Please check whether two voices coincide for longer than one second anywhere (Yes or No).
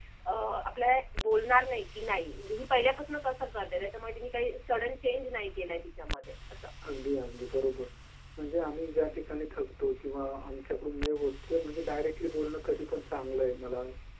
No